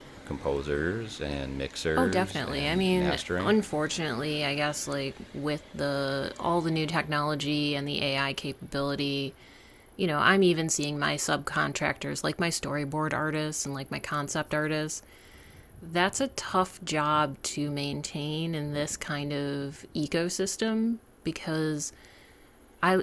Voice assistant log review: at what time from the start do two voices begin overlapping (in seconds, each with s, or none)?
1.9 s